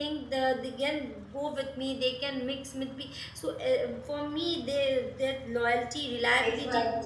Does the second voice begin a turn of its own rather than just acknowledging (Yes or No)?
Yes